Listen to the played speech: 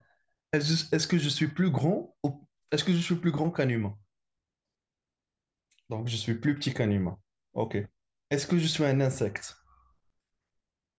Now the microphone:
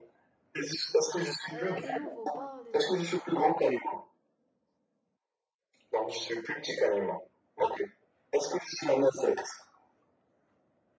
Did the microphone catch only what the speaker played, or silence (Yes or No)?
No